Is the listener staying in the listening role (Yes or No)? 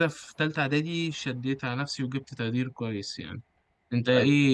Yes